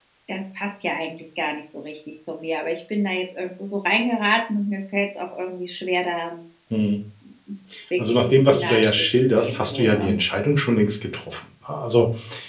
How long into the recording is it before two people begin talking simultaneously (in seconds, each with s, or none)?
8.0 s